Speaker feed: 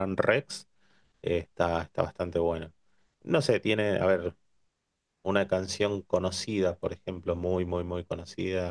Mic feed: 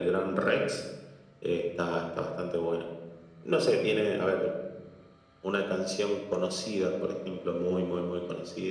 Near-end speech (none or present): none